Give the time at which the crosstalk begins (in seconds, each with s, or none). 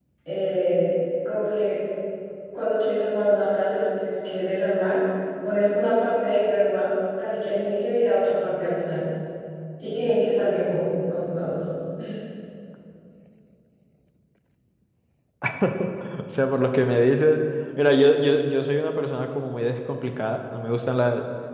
none